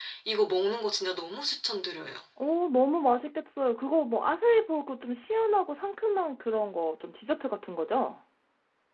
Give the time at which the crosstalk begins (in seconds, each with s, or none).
none